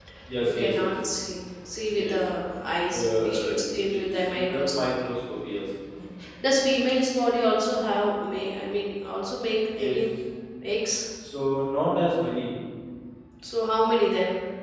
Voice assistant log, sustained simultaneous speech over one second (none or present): present